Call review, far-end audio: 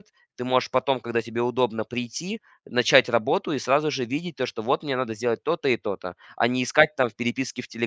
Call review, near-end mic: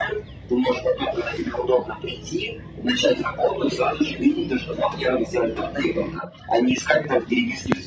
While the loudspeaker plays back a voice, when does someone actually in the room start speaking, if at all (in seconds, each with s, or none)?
none